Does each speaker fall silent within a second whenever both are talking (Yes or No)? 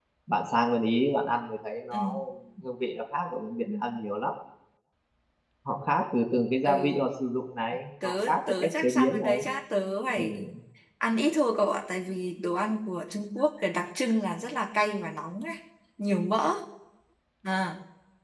No